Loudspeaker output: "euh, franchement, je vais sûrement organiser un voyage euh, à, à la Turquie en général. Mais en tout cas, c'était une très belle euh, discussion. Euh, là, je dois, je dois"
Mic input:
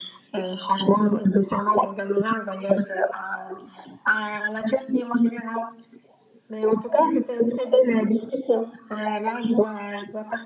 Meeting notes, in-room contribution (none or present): none